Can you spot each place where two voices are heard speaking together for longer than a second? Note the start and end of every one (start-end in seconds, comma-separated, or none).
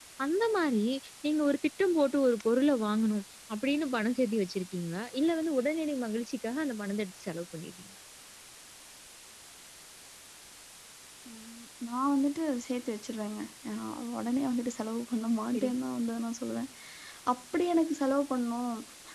none